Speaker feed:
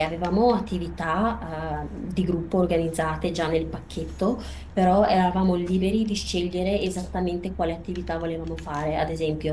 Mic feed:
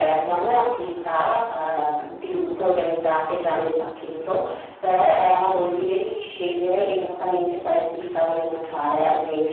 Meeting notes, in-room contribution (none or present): none